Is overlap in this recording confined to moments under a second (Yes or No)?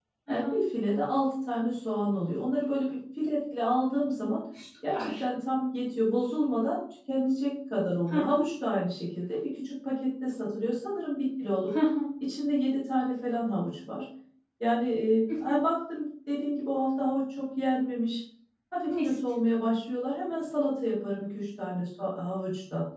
Yes